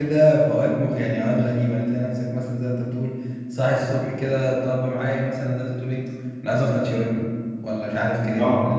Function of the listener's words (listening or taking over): listening